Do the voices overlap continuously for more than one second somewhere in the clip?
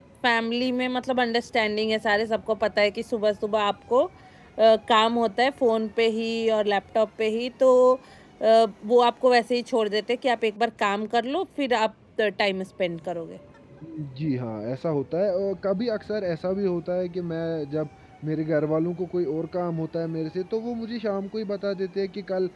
No

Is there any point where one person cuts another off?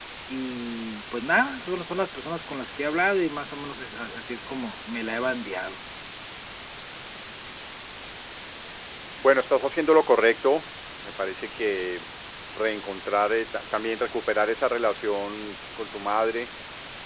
No

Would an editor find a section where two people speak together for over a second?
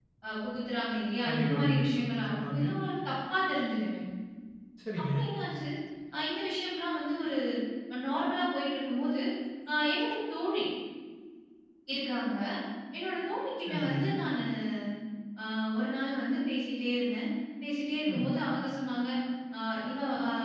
Yes, from 1.2 s

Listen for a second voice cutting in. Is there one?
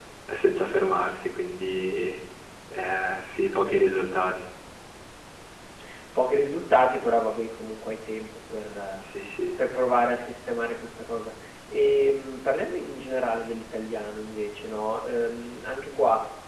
No

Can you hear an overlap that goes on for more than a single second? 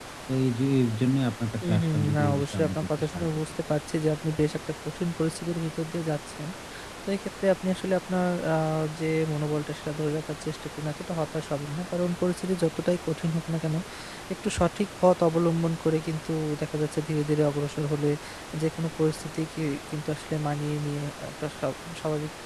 Yes, from 1.6 s

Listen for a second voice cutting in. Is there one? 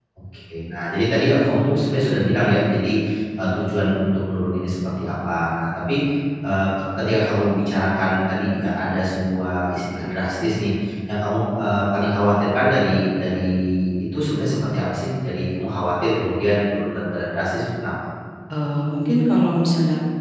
No

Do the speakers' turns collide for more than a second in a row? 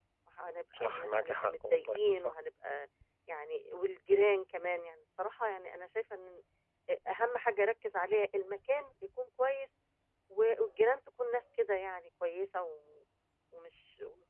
Yes, from 0.8 s

